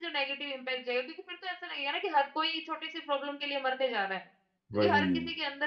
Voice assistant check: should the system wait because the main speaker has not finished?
Yes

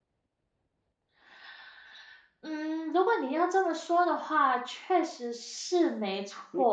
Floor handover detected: Yes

